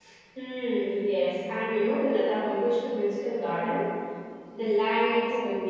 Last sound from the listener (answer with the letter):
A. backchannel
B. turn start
A